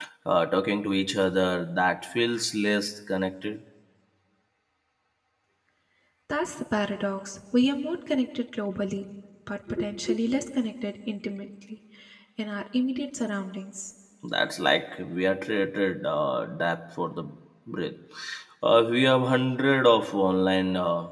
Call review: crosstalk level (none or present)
none